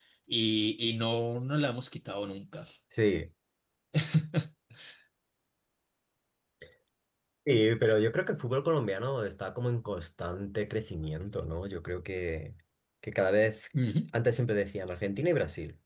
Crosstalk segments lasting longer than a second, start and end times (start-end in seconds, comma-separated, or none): none